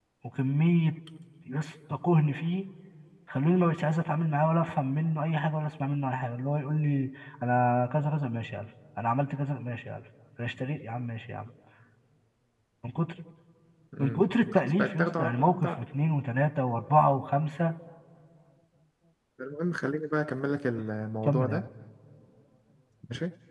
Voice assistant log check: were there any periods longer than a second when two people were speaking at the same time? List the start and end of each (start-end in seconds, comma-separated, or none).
14.0-15.7